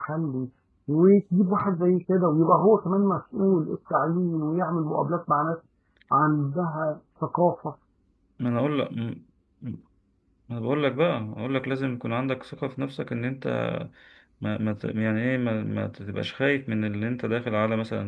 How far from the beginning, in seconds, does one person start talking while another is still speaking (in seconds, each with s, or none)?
none